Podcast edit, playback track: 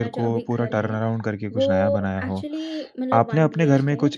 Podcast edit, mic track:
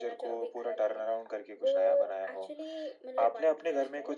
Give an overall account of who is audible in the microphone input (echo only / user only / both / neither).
echo only